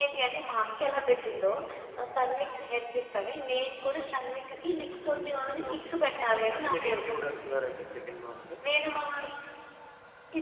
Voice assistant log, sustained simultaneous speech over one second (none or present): present